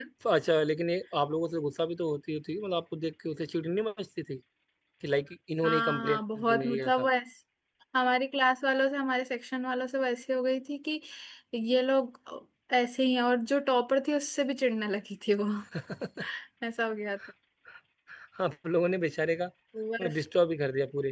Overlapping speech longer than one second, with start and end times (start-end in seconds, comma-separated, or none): 5.6-7.1